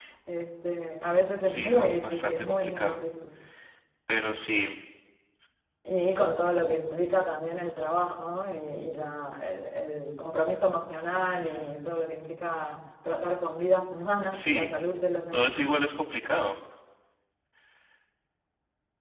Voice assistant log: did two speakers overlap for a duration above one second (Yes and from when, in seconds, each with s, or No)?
Yes, from 1.4 s